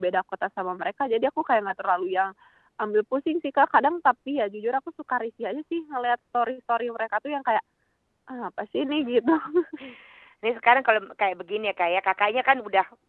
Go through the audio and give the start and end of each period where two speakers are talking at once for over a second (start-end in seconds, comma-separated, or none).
none